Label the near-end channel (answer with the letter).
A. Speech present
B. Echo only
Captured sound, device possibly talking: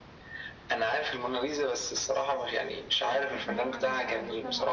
A